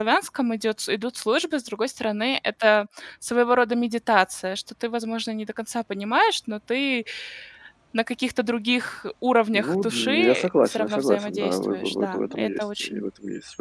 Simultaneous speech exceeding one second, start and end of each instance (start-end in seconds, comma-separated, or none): 9.6-13.1